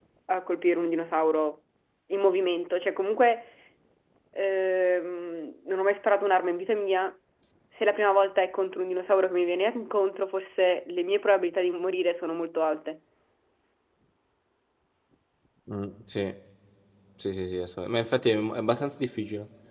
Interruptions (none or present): none